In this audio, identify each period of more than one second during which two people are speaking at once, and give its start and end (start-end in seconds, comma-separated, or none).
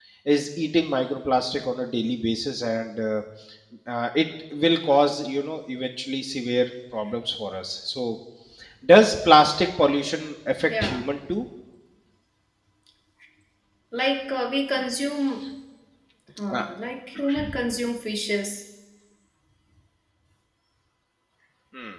none